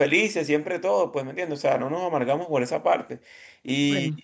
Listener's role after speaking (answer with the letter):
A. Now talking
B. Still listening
B